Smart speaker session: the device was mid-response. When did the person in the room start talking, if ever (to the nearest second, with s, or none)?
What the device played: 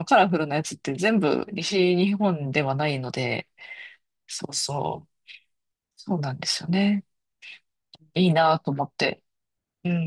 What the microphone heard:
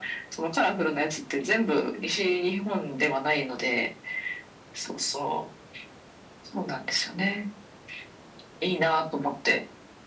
none